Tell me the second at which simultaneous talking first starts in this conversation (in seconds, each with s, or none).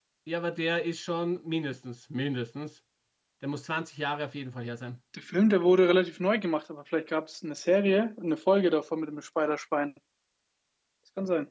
none